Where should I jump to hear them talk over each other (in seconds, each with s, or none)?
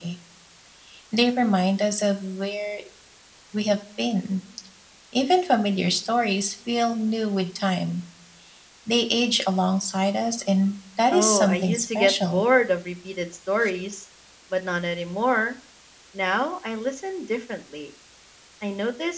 11.1 s